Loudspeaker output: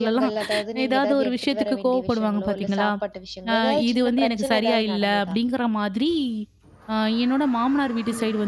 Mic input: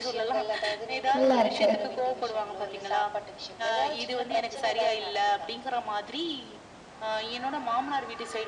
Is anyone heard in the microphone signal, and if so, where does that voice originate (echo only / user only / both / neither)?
both